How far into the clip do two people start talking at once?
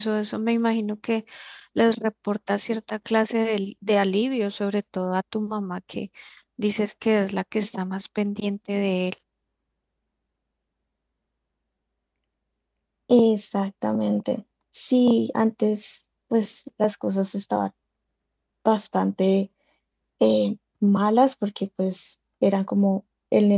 none

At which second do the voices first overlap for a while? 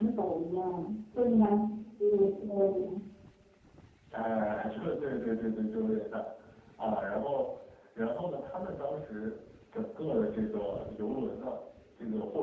none

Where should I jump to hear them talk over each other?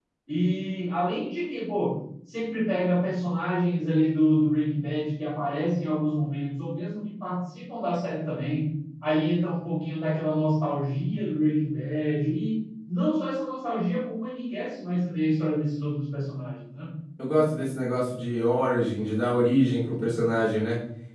none

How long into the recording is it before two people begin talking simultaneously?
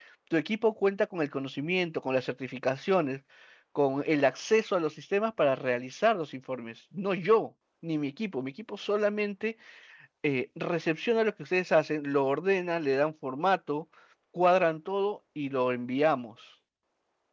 none

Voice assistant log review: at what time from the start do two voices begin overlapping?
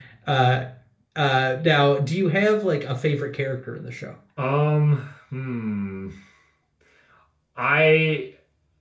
none

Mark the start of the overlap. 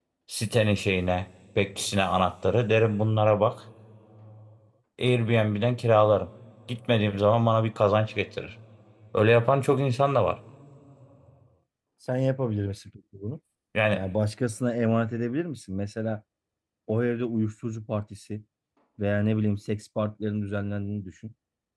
none

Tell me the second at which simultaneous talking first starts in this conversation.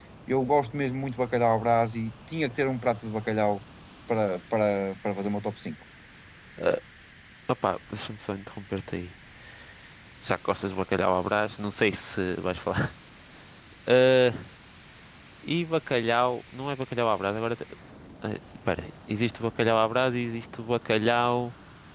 none

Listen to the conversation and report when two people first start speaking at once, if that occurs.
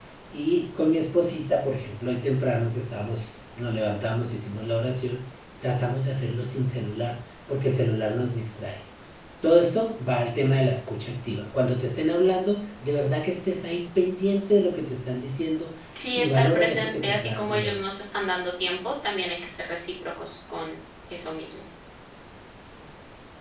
16 s

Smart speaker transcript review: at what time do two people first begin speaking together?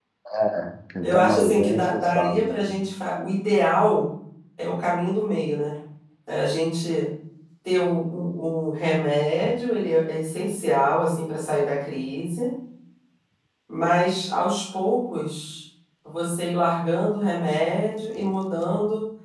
1 s

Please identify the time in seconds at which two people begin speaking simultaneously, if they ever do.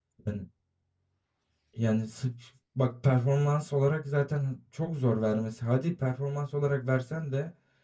none

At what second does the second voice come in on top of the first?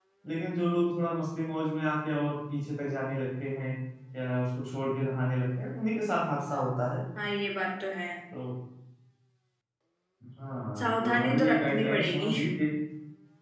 11 s

